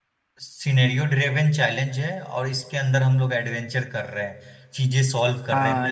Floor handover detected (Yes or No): Yes